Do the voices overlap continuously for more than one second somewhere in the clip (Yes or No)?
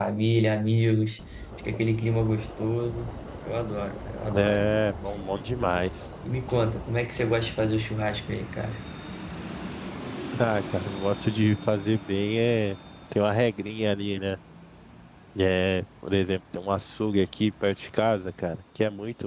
No